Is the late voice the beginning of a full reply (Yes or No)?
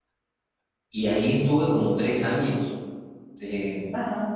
Yes